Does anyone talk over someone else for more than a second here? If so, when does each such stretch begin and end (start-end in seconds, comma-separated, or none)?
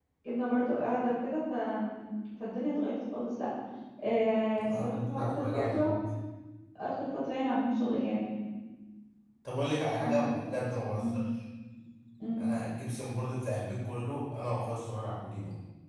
4.5-5.8